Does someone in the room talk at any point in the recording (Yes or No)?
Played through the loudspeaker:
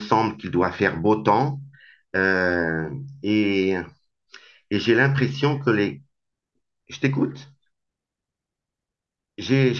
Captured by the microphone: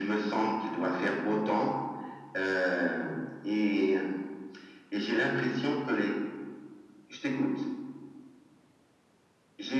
No